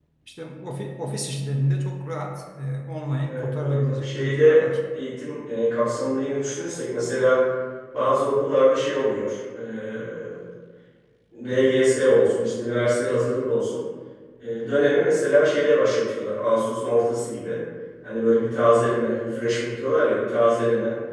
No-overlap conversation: No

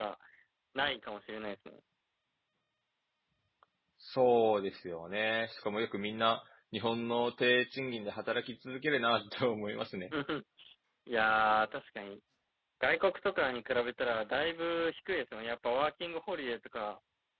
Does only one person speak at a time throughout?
Yes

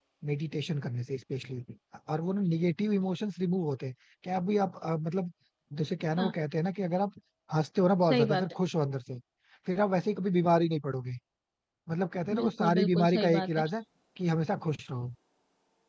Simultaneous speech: Yes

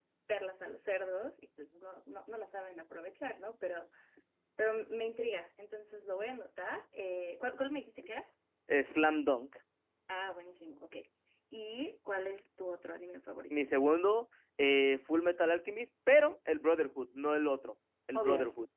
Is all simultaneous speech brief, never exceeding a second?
Yes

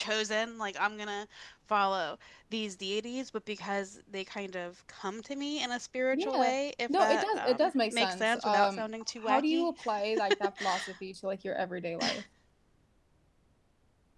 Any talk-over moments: Yes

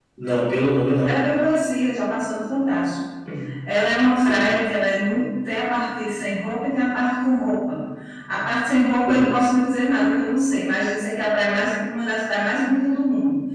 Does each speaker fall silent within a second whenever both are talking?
Yes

